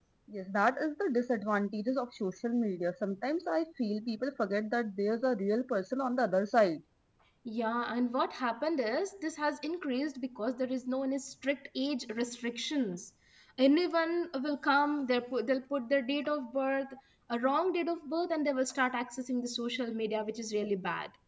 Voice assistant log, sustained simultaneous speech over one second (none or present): none